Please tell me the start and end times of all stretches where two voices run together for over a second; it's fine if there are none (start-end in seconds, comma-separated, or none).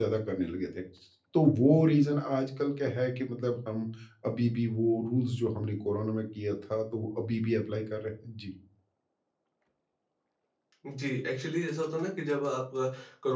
none